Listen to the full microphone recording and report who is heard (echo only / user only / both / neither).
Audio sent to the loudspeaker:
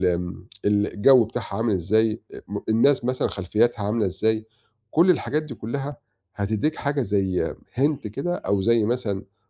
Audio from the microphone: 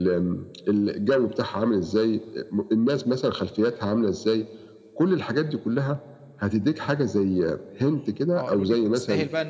both